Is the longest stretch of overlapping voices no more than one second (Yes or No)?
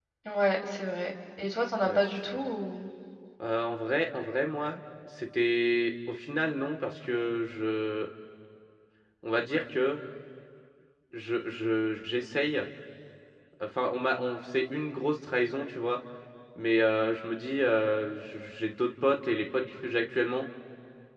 Yes